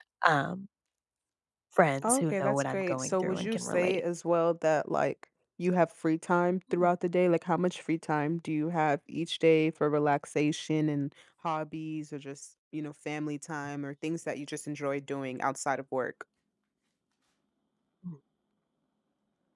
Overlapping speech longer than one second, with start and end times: 2.1-4.0

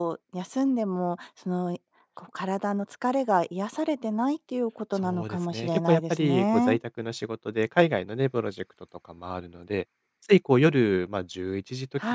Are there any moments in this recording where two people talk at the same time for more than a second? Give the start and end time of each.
5.0-6.8

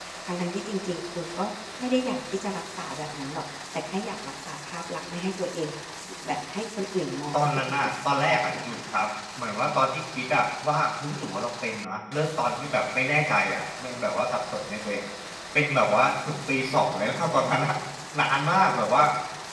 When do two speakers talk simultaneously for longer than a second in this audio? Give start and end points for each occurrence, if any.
7.4-9.1

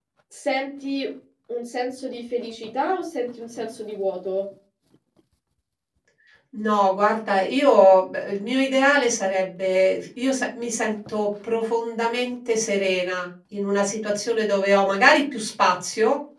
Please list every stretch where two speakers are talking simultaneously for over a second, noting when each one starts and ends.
none

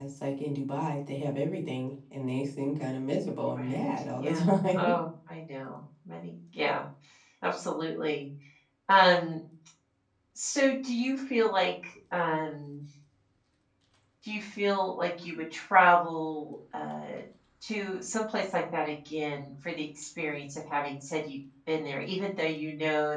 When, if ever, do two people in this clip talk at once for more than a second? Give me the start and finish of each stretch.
3.5-4.8

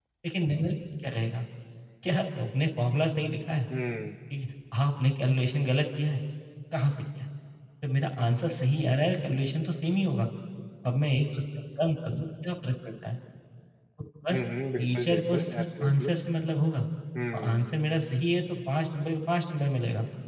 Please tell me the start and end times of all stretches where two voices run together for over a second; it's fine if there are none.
14.8-16.1

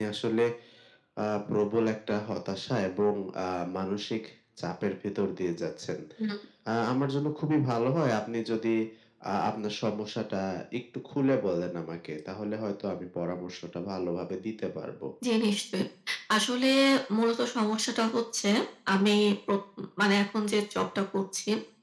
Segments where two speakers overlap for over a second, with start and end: none

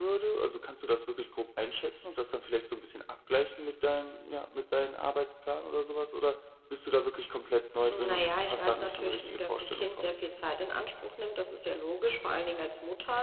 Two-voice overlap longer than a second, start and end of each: 7.9-10.1

